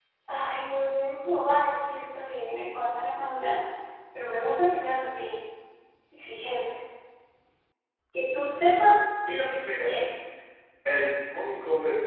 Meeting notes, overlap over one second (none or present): none